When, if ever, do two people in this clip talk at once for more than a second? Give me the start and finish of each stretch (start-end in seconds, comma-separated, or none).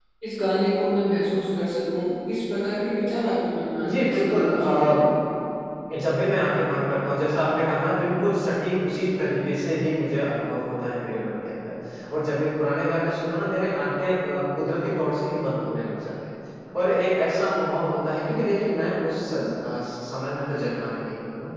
3.8-5.0